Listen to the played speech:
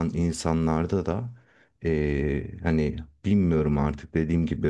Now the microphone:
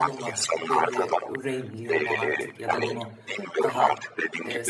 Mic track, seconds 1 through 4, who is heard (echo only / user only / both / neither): both